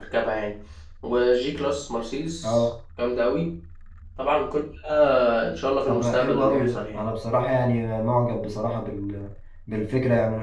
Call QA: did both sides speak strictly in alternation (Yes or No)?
No